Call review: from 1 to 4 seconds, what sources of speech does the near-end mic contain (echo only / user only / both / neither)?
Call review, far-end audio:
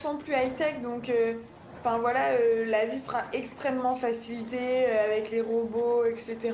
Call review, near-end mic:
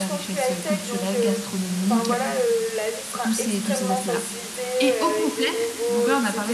both